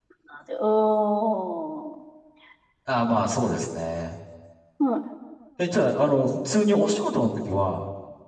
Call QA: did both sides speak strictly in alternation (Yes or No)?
Yes